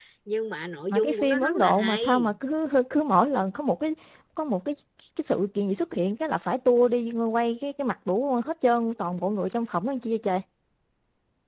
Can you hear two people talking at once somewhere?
Yes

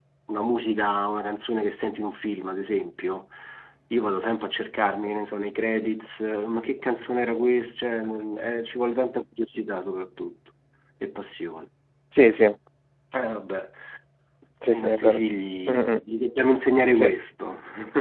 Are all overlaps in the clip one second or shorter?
Yes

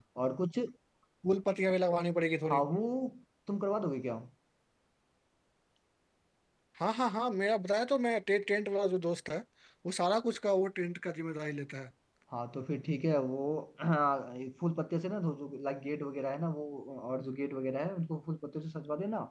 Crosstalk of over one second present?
No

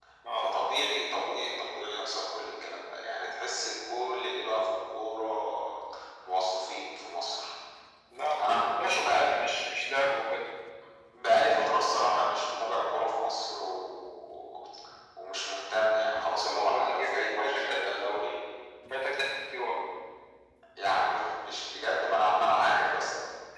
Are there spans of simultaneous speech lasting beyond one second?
Yes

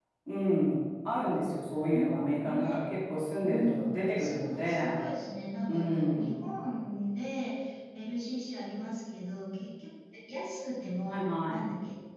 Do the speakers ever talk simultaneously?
Yes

